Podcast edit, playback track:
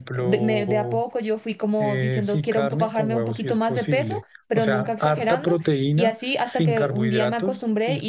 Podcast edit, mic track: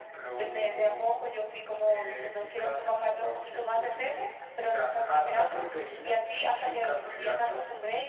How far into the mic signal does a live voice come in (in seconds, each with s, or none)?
none